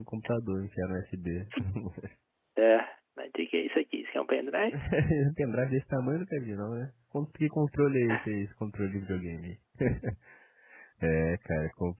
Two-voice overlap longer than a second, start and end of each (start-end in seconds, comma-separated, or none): none